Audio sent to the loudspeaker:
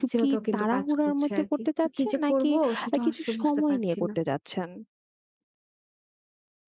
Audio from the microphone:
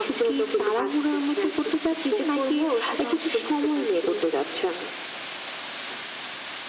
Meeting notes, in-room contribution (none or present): none